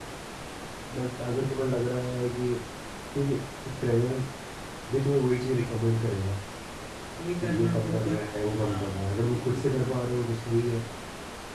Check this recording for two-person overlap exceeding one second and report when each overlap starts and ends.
7.4-10.0

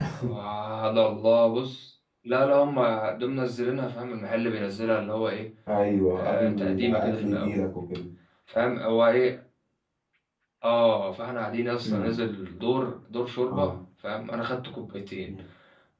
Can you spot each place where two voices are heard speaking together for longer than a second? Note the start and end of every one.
6.1-7.5

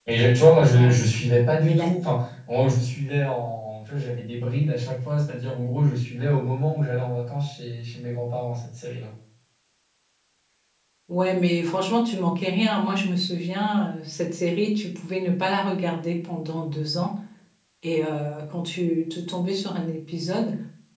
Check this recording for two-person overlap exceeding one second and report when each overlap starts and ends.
none

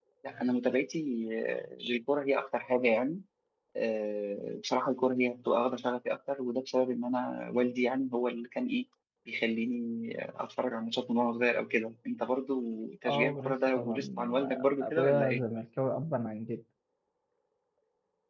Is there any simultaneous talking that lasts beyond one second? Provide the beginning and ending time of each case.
13.1-15.4

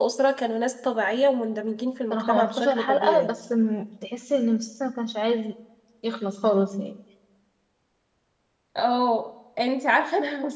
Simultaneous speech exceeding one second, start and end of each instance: 2.1-3.3

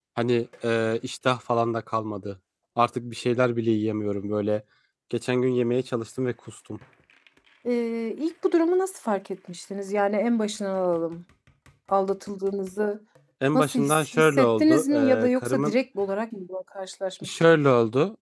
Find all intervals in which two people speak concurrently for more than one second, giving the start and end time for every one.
13.5-15.7

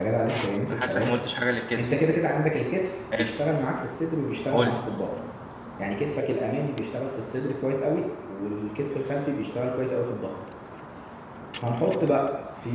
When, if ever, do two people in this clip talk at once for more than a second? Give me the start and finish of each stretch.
none

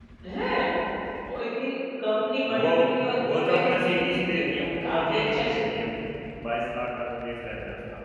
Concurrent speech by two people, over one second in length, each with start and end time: 3.3-5.5

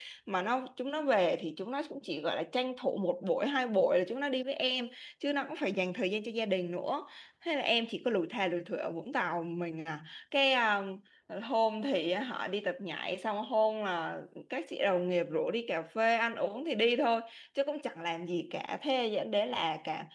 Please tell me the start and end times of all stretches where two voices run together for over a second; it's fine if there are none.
none

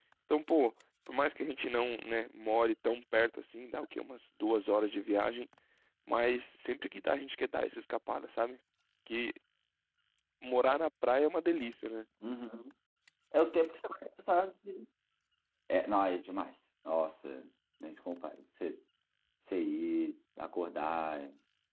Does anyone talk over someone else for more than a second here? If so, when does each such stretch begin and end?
none

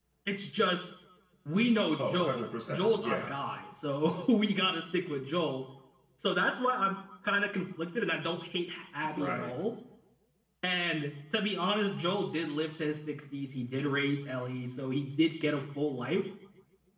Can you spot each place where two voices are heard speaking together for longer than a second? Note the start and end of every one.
2.0-3.3

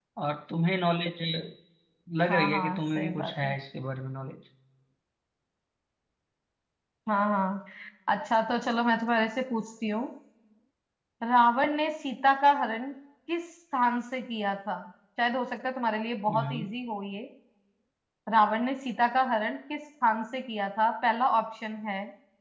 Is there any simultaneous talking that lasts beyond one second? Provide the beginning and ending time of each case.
2.3-3.5

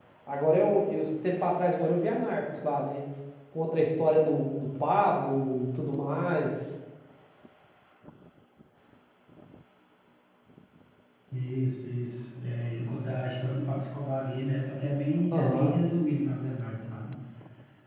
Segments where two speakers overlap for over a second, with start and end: none

